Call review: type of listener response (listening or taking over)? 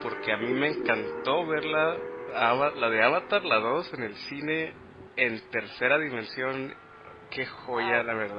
listening